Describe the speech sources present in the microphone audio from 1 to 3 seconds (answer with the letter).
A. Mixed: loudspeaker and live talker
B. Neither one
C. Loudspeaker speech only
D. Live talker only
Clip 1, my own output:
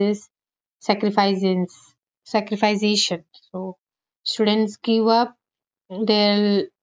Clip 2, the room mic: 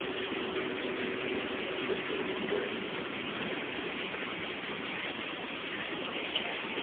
B